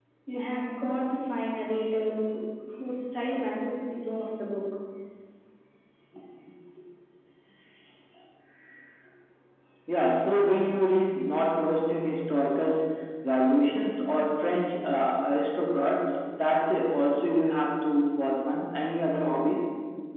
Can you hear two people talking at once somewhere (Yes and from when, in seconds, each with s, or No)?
No